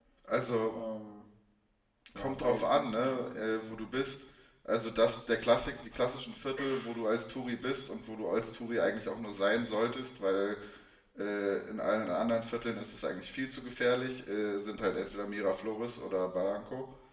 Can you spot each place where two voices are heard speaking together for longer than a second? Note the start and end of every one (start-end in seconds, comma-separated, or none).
2.1-3.5